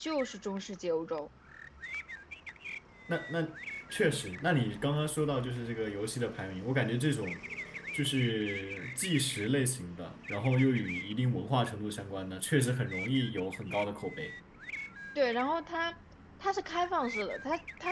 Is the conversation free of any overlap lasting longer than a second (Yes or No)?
Yes